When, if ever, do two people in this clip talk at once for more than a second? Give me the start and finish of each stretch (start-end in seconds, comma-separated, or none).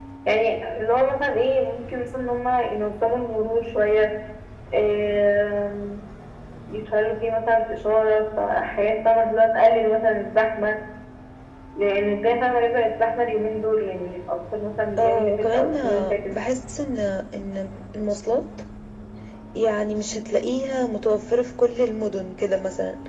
15.0-16.4